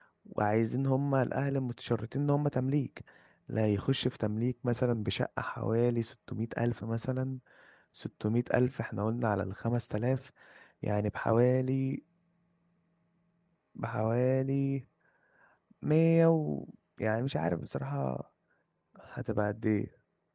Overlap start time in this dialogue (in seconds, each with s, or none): none